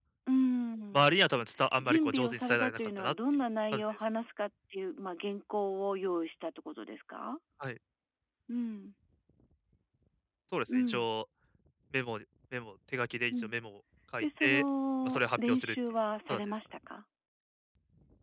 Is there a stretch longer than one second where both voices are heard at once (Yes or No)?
Yes